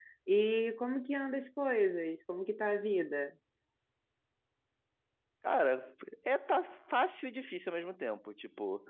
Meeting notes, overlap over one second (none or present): none